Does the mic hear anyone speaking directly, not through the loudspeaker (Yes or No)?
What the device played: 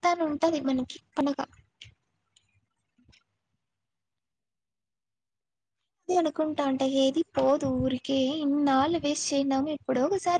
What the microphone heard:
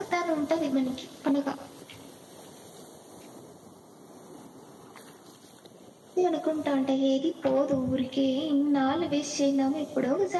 No